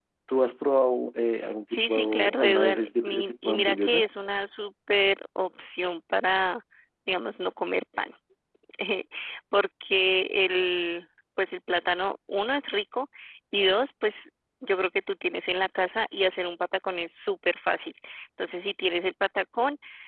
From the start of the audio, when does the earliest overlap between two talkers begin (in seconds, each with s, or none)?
1.7 s